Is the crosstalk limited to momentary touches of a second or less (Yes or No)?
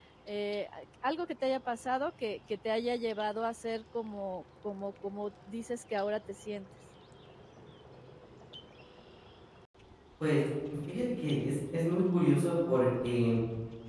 Yes